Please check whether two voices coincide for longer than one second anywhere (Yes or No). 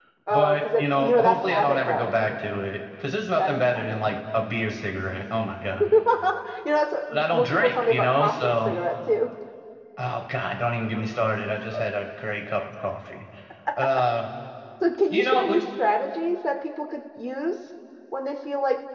Yes